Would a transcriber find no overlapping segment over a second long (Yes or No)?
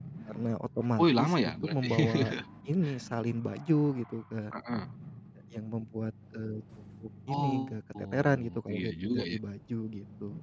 No